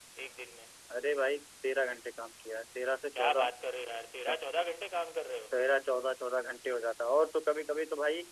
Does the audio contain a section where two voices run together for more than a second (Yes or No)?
No